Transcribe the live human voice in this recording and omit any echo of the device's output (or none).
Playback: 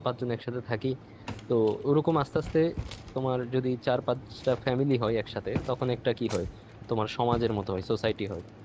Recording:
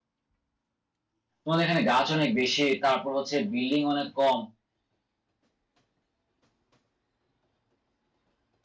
তোমাদের এখানে গাছ অনেক বেশি তারপর হচ্ছে বিল্ডিং অনেক কম